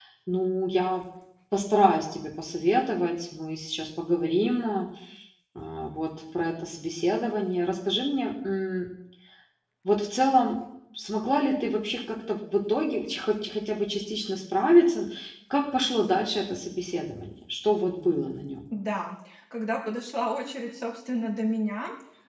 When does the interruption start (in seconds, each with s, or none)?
none